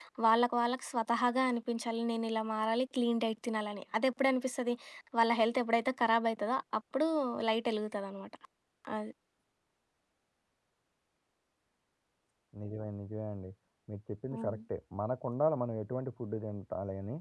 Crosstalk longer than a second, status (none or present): none